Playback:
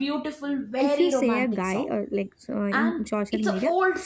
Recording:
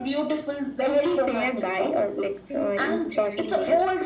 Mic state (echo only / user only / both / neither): both